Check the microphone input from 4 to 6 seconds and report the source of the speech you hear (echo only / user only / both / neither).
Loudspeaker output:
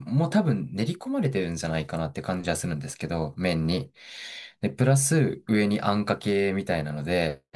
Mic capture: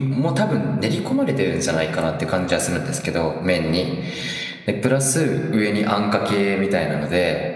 echo only